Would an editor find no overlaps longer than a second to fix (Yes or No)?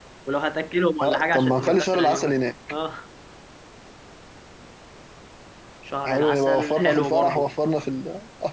No